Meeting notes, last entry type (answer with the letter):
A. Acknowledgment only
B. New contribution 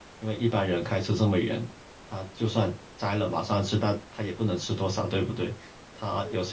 A